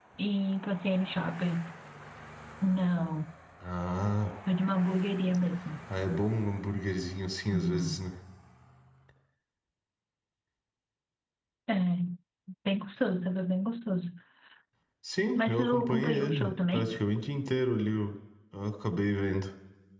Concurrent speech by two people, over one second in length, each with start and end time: 15.4-17.0

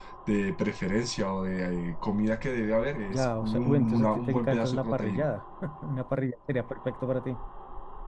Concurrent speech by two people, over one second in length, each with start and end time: 3.1-5.3

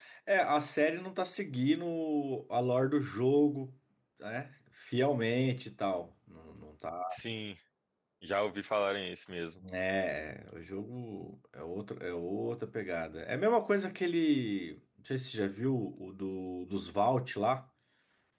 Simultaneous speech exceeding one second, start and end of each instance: none

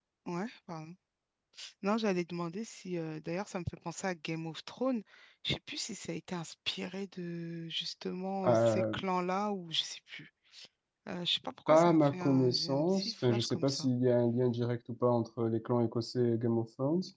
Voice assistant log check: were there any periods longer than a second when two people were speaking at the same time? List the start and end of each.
11.7-13.9

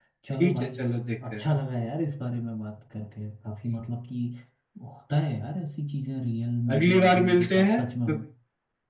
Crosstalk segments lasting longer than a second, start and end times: 6.7-8.2

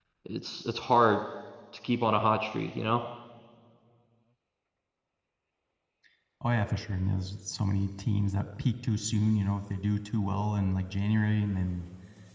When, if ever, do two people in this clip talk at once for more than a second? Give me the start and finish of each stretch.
none

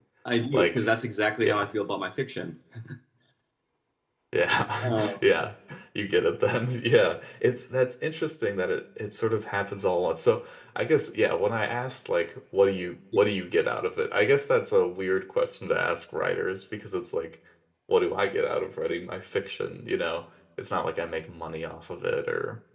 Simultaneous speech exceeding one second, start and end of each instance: none

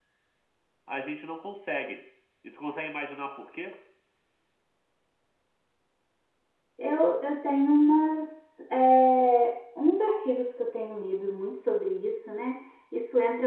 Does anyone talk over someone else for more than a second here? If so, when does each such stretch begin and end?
none

